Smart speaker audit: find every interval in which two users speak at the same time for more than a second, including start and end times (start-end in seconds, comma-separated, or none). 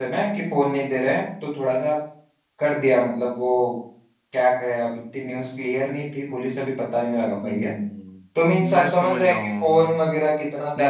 8.6-10.0